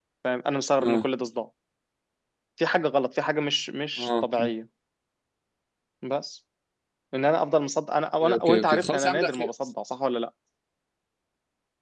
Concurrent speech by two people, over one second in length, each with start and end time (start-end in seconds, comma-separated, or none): 8.2-9.5